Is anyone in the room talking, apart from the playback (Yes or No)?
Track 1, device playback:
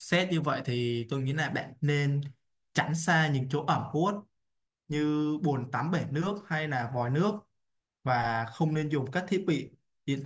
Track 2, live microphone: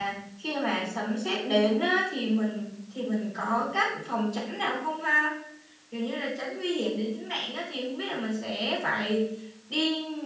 Yes